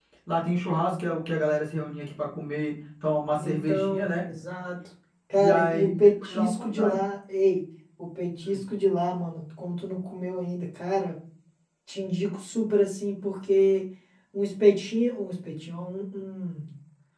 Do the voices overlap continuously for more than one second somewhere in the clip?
Yes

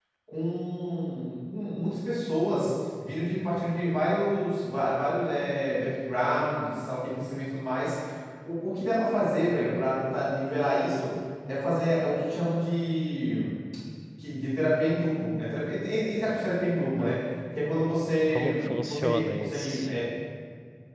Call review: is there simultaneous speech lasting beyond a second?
Yes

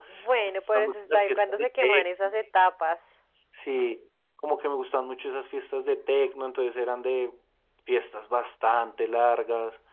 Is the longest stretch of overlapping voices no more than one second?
No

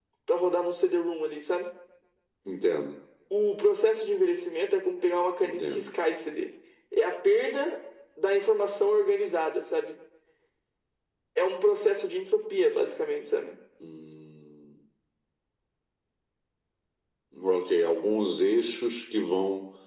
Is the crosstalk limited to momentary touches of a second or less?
Yes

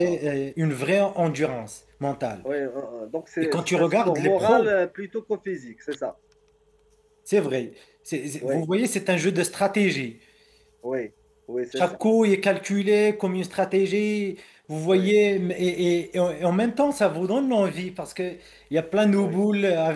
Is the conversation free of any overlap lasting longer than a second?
No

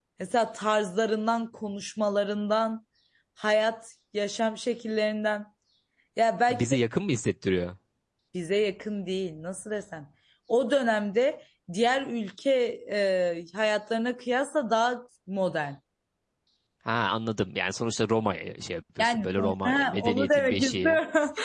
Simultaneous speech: Yes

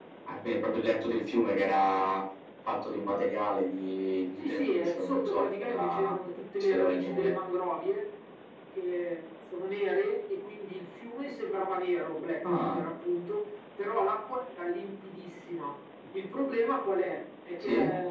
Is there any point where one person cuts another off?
Yes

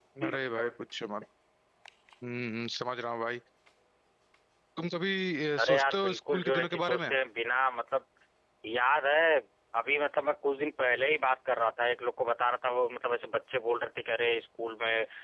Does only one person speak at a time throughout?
No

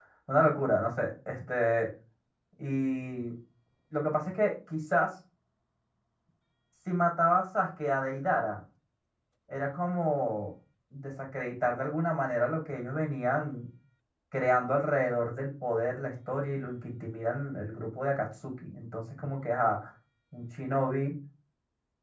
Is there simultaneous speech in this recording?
No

